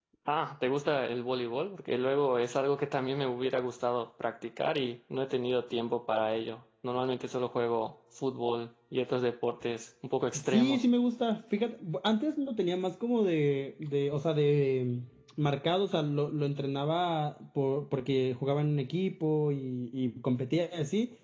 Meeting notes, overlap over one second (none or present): none